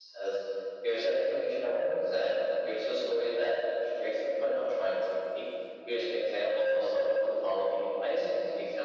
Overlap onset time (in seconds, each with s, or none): none